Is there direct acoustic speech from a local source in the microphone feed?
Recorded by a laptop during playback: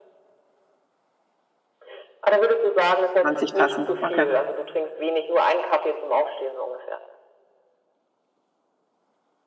Yes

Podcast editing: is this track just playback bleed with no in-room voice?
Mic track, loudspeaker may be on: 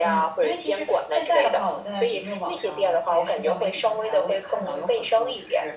No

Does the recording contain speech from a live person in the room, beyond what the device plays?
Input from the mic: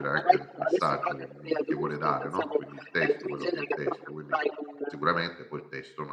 Yes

